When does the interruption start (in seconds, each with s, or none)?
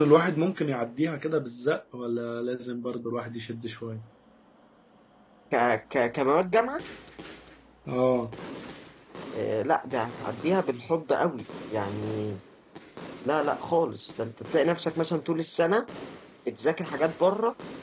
none